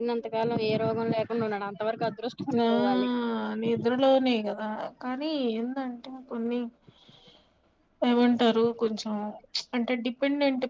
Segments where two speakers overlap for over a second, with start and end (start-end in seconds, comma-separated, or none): none